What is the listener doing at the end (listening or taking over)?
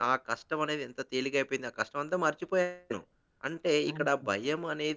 listening